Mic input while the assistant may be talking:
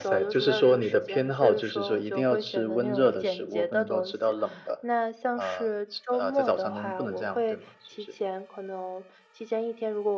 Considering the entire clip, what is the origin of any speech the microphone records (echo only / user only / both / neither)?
echo only